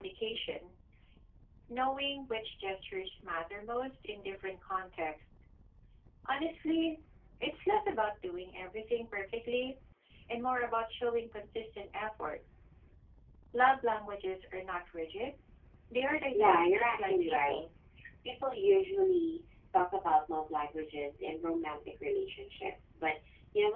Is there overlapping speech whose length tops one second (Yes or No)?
Yes